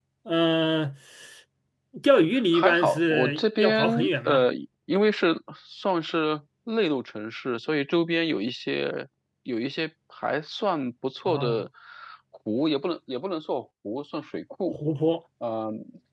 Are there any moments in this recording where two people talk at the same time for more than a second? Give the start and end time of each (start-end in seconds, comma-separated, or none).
2.5-4.5